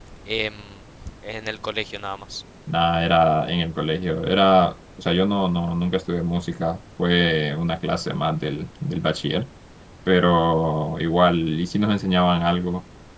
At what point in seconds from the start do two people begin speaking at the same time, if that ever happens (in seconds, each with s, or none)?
none